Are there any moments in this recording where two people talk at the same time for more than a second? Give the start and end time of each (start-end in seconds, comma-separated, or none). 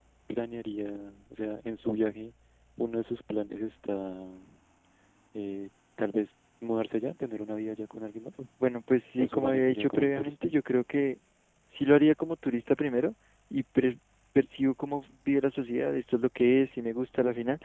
9.2-10.5